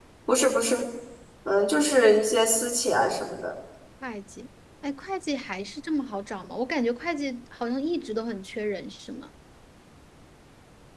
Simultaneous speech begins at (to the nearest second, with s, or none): none